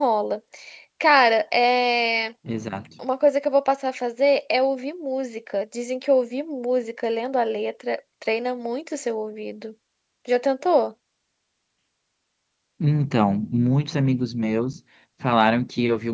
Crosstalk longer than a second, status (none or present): none